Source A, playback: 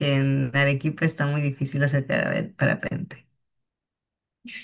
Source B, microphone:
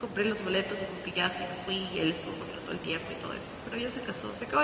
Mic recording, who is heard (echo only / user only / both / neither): user only